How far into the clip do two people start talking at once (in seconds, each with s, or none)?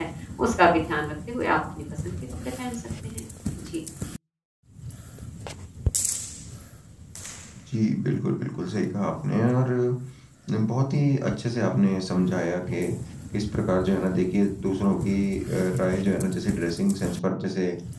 none